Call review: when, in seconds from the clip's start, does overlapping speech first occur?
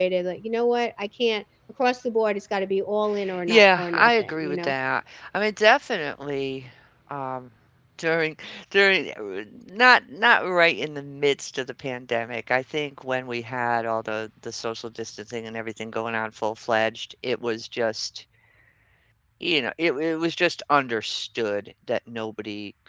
3.3 s

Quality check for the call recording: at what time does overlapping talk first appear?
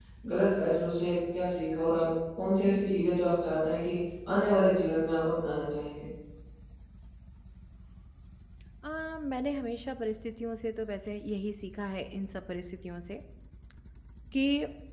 none

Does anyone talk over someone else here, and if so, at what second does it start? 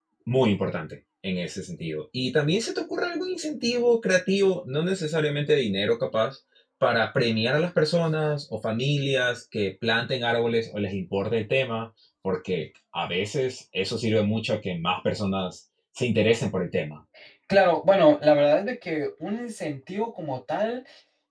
none

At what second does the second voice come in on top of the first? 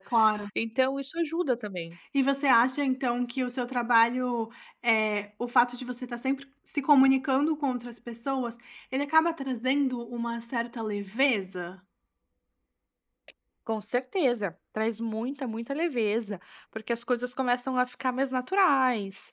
none

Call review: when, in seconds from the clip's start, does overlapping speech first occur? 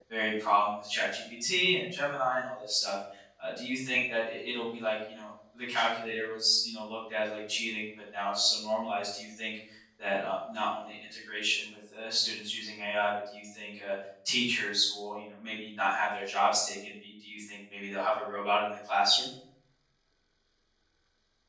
none

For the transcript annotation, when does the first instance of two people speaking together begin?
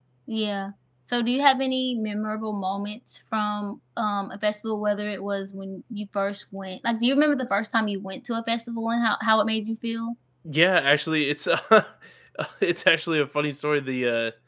none

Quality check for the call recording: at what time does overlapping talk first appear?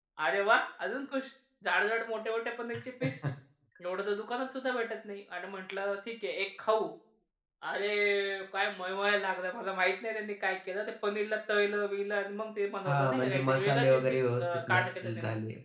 12.8 s

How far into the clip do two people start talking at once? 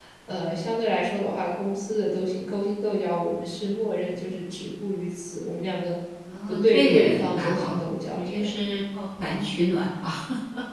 6.5 s

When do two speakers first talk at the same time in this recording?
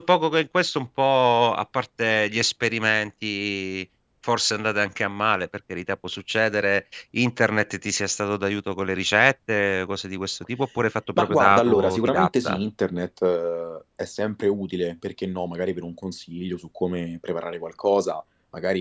11.2 s

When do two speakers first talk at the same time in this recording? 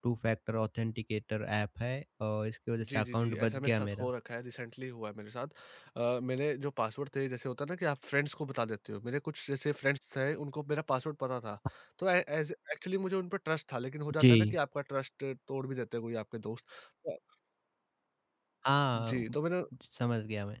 2.9 s

